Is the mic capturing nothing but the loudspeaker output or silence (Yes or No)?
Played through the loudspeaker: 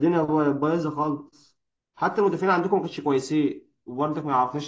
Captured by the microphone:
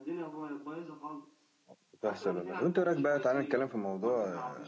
No